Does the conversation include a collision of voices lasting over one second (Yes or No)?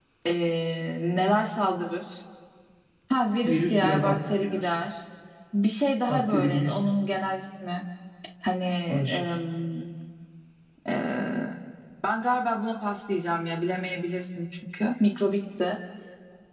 Yes